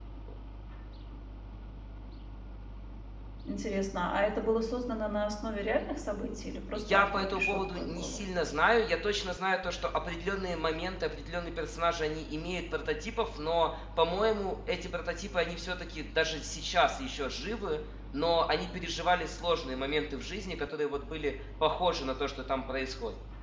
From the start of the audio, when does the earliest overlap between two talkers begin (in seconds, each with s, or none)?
6.7 s